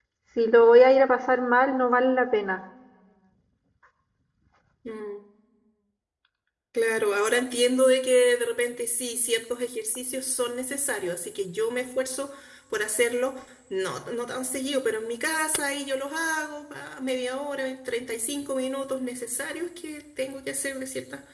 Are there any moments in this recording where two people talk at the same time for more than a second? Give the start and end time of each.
none

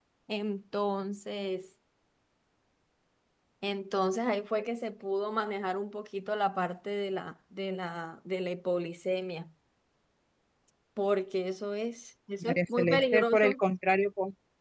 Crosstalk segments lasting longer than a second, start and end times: 12.4-13.6

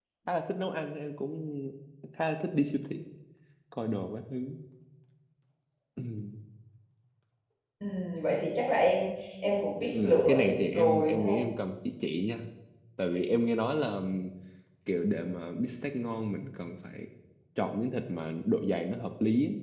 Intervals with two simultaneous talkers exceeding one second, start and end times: 9.9-11.5

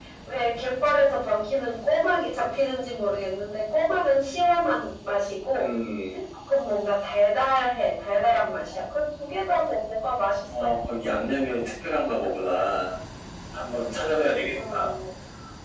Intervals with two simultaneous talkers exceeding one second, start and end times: none

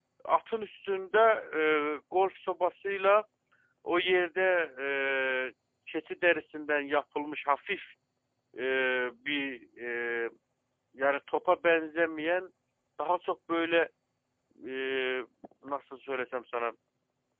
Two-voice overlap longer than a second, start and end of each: none

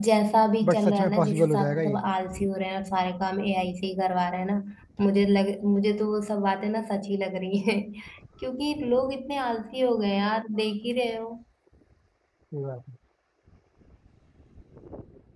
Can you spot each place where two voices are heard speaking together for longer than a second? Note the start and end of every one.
0.7-2.0

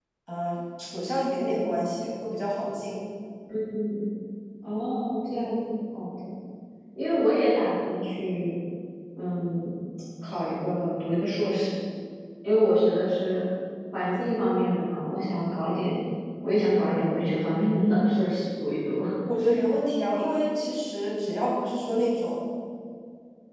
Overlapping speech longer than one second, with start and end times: none

